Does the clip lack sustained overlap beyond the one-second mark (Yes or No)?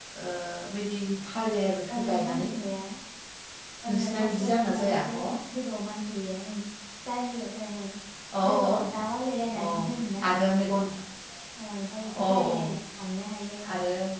No